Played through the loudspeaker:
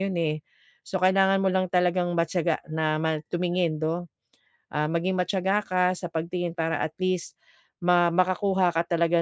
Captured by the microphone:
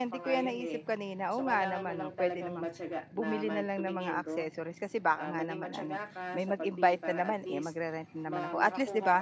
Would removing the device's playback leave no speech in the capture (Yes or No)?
No